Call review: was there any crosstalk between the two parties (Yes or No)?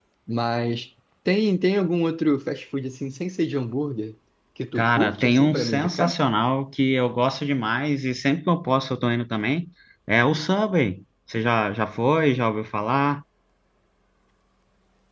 Yes